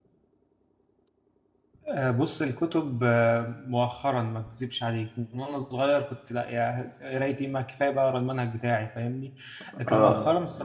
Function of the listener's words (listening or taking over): listening